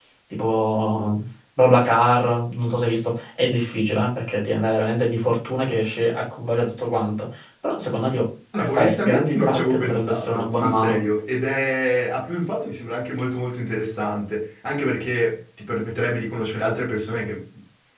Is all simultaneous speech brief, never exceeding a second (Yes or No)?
No